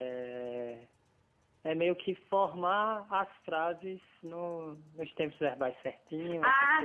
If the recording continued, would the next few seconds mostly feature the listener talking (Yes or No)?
Yes